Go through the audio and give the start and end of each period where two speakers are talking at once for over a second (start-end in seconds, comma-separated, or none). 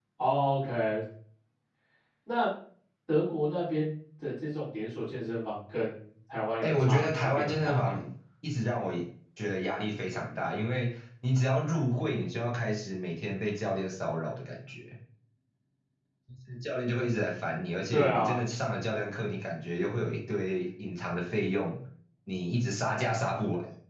6.6-8.0